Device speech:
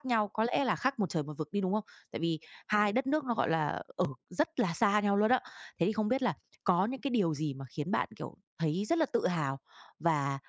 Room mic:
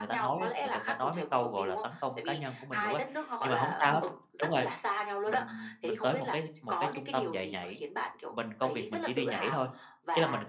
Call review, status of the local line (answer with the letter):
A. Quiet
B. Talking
B